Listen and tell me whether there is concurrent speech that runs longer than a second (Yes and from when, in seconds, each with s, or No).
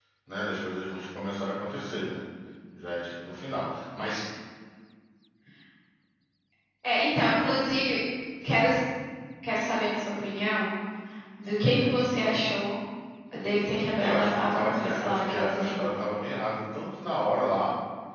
Yes, from 14.0 s